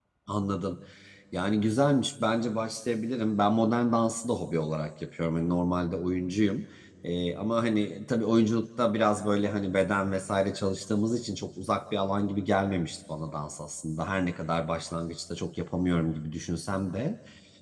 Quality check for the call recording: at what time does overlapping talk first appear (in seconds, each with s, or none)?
none